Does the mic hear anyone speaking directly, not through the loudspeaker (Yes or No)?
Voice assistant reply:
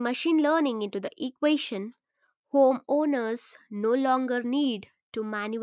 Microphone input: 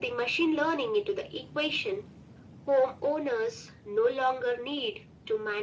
No